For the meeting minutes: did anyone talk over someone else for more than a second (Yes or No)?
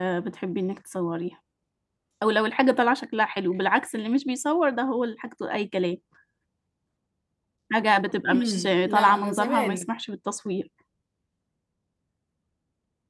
Yes